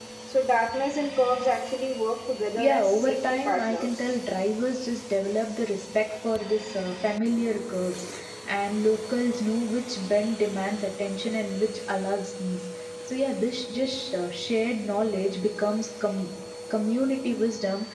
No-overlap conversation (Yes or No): No